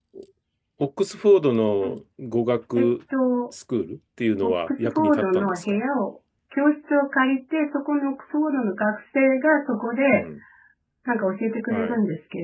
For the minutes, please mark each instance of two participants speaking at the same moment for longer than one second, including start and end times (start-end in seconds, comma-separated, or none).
4.4-5.8